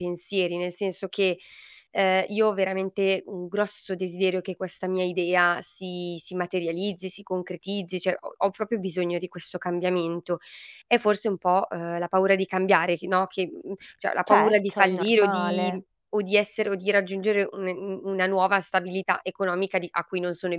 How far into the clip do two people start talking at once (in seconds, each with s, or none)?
14.3 s